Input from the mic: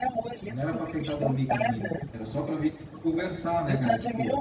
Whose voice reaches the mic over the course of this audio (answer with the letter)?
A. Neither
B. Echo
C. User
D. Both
D